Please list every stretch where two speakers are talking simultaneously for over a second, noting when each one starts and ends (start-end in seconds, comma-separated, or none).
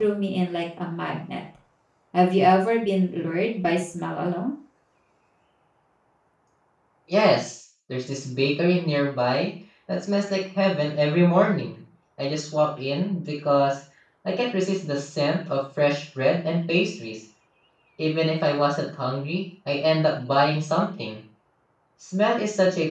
none